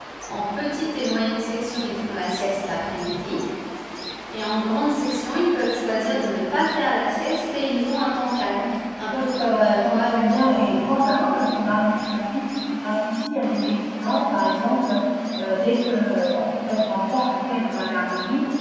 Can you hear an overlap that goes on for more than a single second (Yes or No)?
Yes